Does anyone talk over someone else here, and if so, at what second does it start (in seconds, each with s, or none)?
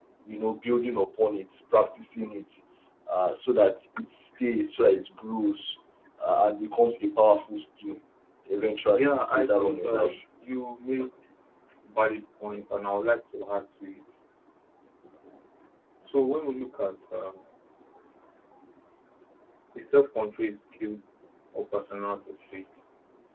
9.0 s